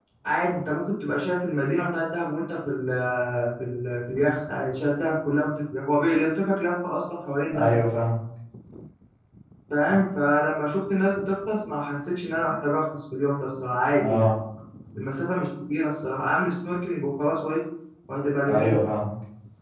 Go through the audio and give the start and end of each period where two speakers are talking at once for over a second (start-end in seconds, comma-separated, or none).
none